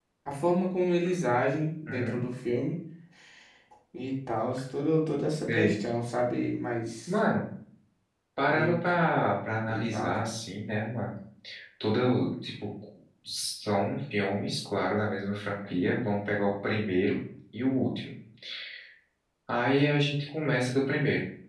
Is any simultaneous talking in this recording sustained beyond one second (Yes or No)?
No